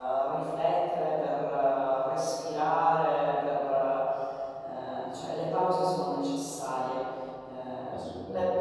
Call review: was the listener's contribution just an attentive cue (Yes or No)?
Yes